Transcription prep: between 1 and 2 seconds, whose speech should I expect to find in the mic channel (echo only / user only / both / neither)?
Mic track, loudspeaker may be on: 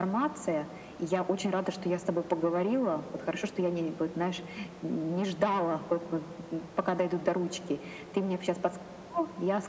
echo only